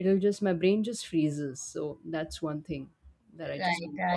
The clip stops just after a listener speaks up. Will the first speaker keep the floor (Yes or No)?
No